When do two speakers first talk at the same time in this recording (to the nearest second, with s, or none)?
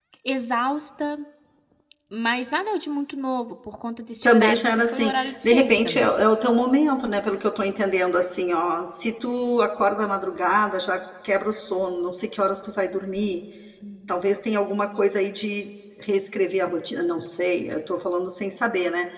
4 s